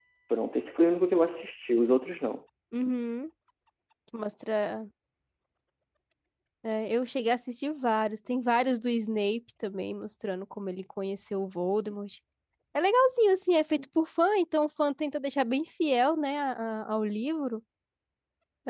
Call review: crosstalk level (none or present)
none